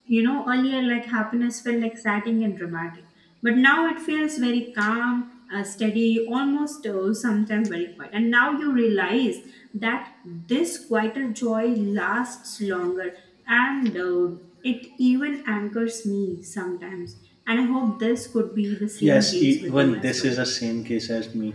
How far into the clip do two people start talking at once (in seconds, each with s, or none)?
19.0 s